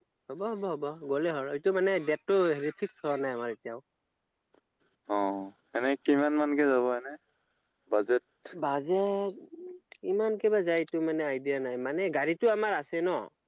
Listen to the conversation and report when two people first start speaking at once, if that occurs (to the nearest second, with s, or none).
none